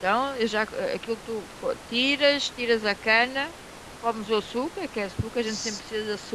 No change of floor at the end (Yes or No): Yes